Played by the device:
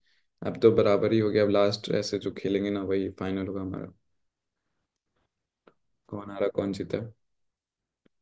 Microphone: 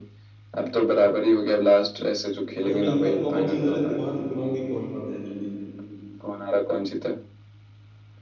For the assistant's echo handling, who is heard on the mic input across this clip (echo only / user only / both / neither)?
both